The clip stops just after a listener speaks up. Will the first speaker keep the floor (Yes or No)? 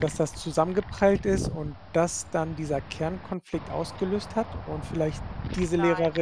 No